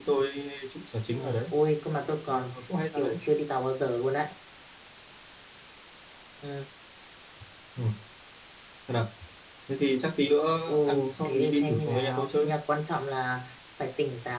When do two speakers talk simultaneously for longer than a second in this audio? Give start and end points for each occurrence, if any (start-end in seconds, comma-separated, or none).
11.2-12.4